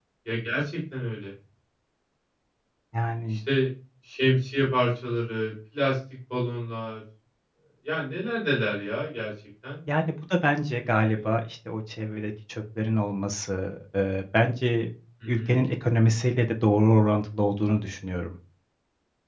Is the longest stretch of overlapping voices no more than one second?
Yes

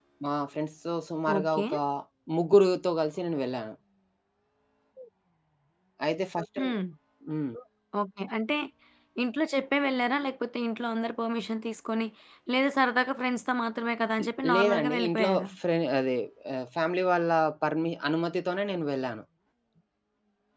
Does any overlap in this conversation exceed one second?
Yes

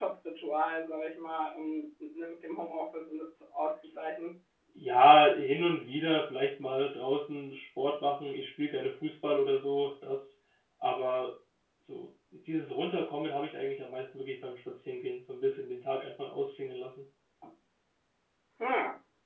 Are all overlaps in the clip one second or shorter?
Yes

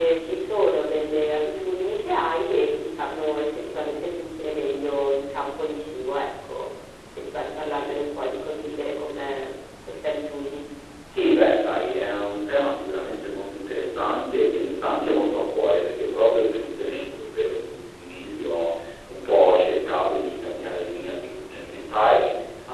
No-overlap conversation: Yes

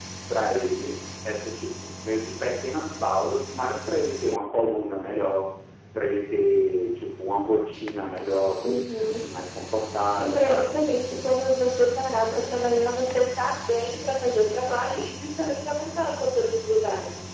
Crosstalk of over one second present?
No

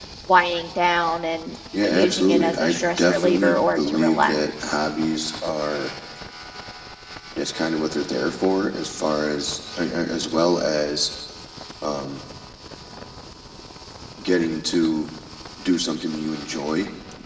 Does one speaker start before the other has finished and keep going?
Yes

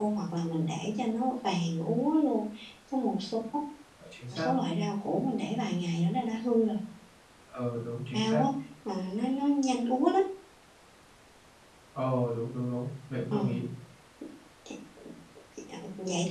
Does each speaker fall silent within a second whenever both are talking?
Yes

